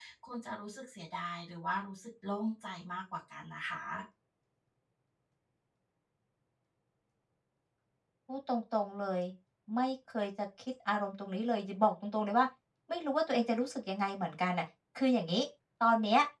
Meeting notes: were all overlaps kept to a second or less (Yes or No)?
Yes